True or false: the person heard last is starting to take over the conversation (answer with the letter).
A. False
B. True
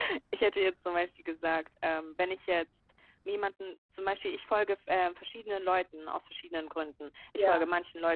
A